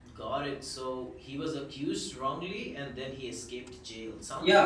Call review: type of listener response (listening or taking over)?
taking over